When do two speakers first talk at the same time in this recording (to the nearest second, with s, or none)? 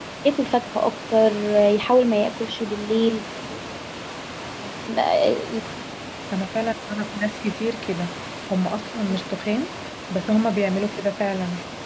none